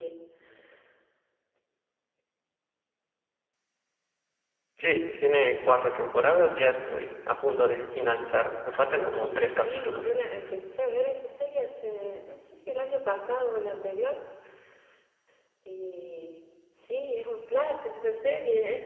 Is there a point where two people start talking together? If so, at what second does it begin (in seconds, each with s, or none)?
8.7 s